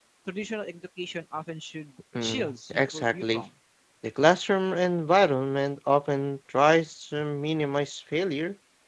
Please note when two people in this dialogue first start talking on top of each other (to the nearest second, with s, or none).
2 s